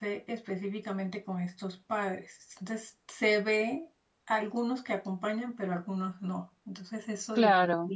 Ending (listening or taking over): listening